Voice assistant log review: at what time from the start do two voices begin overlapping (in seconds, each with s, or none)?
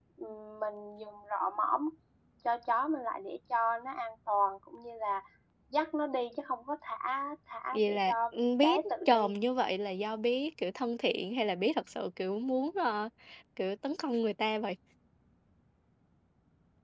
7.7 s